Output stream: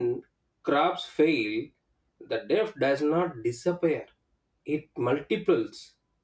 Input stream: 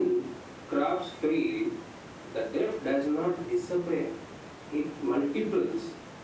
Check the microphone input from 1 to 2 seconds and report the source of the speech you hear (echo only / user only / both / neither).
echo only